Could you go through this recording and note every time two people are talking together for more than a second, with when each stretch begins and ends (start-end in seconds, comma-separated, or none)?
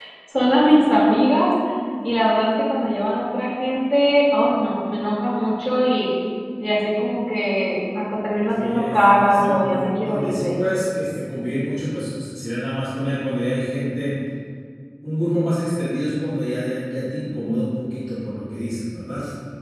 8.6-10.6